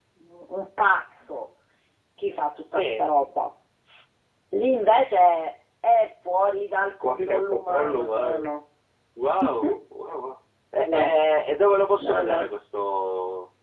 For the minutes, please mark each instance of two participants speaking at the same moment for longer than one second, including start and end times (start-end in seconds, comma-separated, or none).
7.0-8.5